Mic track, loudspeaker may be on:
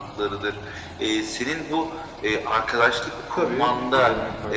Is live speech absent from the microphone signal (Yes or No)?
No